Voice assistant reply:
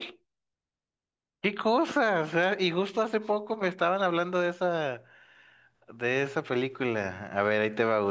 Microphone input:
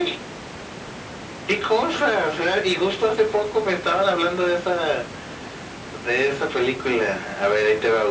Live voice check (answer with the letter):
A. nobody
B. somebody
A